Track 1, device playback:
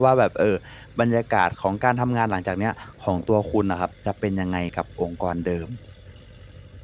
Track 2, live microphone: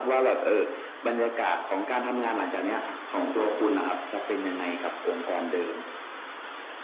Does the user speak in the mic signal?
No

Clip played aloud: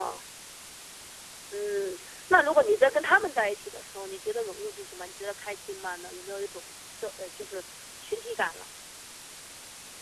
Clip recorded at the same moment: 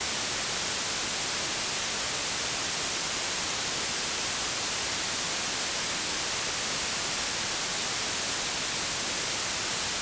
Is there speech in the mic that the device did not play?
No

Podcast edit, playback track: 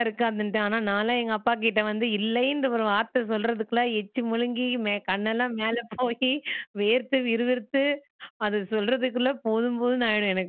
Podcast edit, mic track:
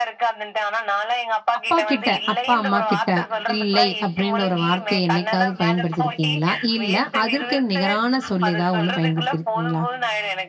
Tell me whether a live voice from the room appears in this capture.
Yes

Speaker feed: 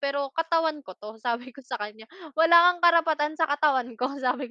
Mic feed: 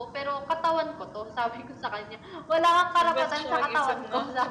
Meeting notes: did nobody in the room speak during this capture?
No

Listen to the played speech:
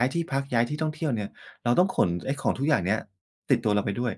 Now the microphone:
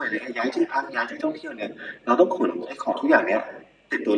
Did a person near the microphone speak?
No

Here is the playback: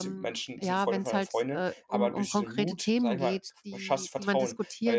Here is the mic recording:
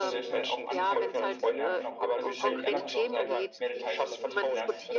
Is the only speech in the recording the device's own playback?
No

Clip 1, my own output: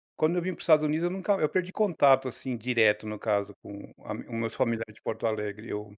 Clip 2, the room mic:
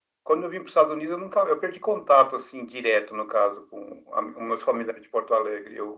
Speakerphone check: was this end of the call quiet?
Yes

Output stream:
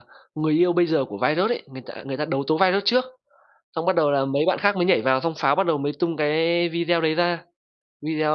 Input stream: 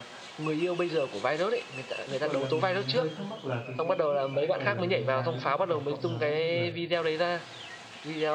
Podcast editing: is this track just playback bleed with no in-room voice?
No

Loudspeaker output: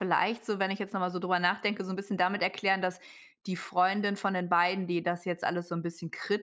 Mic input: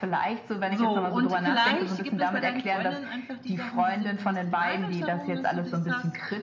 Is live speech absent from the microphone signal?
No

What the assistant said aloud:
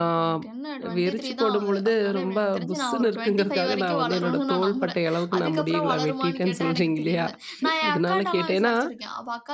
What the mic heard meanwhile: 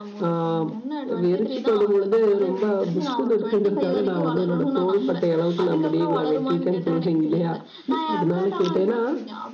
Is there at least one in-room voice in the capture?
No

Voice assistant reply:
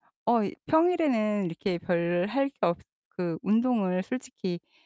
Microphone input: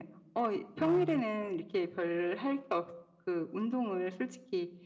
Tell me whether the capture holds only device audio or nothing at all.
No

